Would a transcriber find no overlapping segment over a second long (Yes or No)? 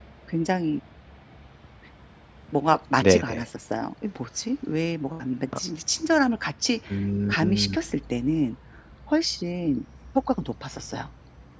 Yes